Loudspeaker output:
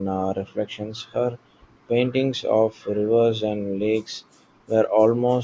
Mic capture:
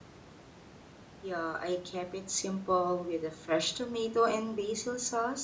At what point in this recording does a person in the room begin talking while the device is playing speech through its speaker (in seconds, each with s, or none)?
1.2 s